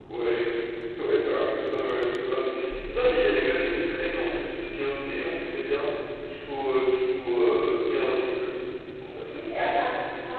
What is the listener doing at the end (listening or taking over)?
taking over